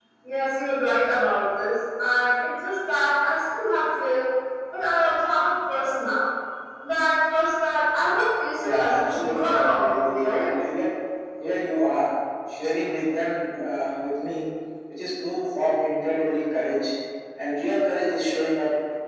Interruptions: present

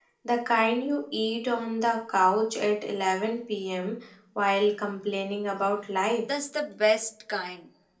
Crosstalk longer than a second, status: none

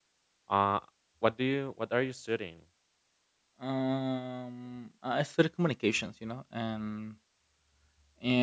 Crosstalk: none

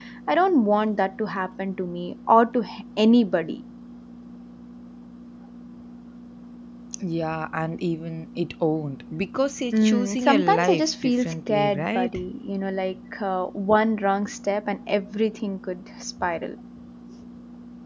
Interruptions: present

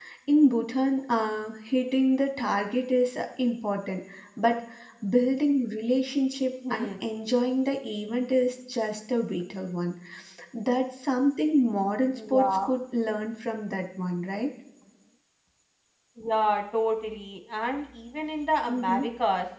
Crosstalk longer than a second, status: none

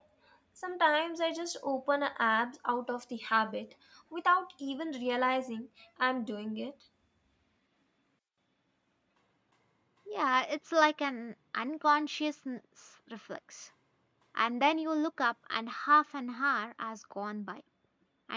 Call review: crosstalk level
none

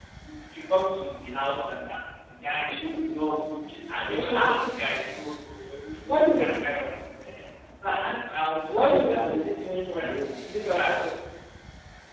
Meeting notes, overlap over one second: present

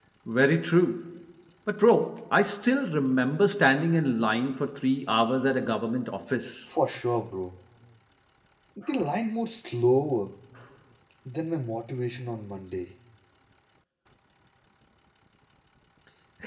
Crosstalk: none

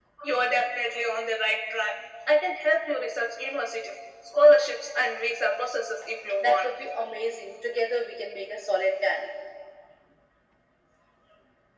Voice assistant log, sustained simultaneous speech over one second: none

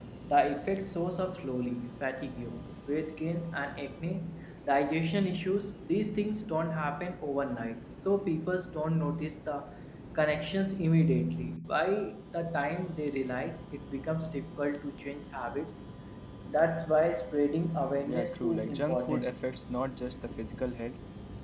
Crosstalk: present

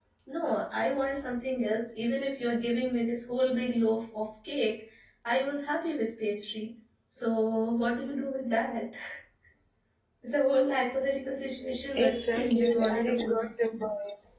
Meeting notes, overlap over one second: present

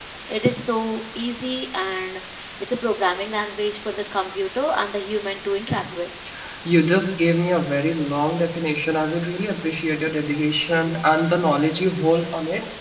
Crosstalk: none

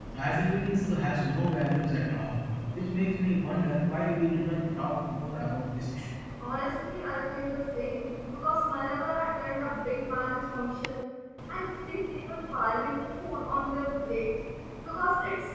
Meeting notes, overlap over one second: none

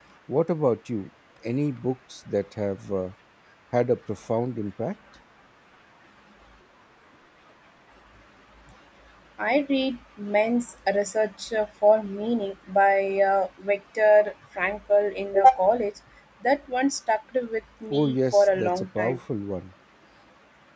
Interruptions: present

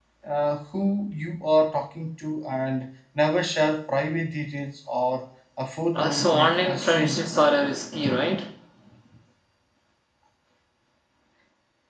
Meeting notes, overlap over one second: present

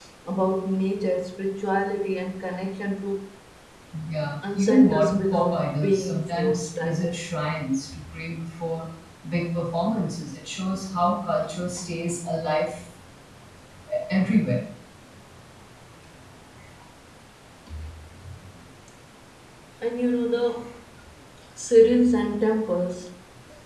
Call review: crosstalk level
present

